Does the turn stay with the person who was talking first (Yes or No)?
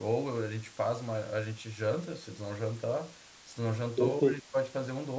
Yes